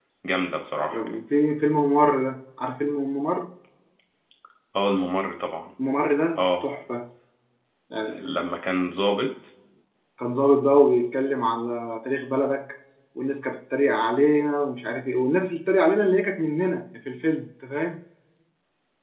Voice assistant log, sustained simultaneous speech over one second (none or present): none